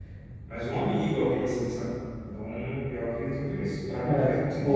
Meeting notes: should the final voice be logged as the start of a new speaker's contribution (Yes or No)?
Yes